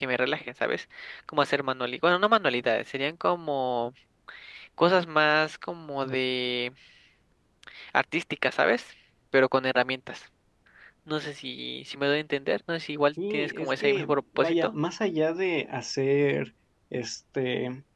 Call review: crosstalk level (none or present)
present